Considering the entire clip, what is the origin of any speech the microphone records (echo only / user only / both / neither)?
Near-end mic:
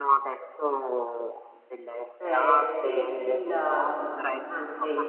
both